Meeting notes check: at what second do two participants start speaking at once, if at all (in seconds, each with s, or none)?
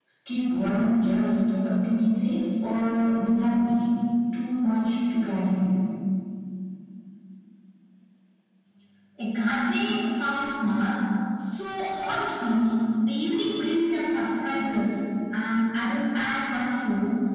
none